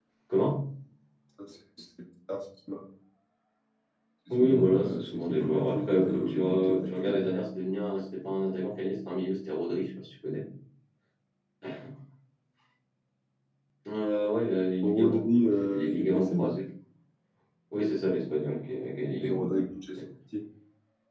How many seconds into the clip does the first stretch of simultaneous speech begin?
4 s

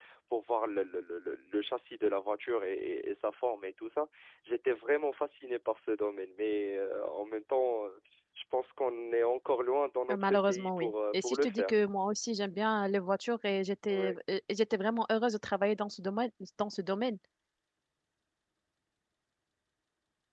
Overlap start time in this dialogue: 10 s

